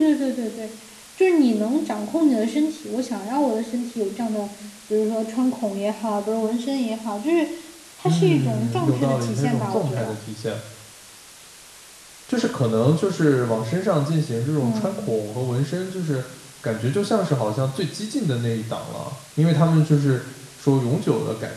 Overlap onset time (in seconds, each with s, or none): 8.0 s